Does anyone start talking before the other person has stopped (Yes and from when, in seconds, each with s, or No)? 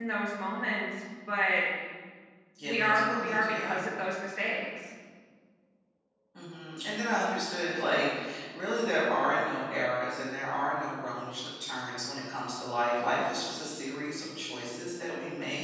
Yes, from 2.6 s